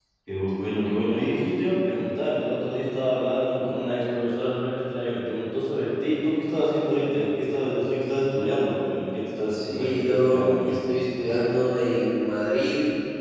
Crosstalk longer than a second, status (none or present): present